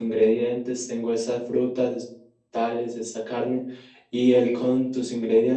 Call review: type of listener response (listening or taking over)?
listening